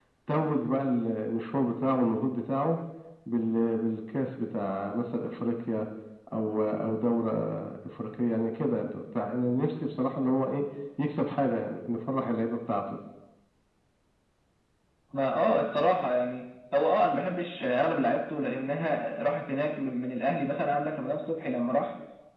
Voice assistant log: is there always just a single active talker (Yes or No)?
Yes